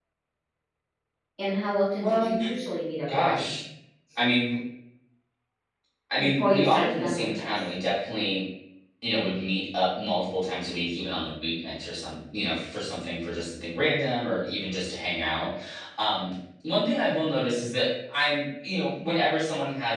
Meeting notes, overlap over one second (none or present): present